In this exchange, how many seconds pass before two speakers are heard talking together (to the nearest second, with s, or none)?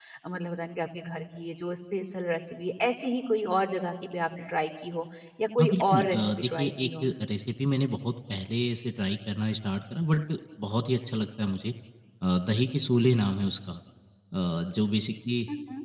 6 s